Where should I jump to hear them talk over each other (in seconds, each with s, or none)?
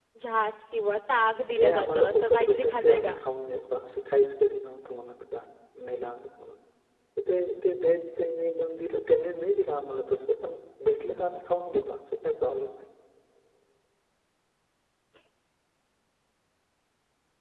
1.5 s